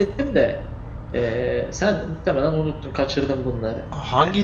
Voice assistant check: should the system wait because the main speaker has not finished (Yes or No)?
No